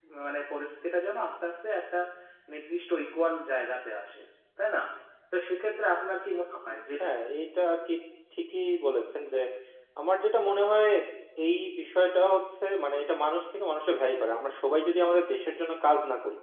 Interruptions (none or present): none